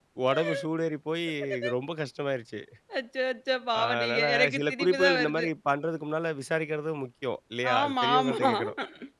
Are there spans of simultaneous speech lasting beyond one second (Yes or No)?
Yes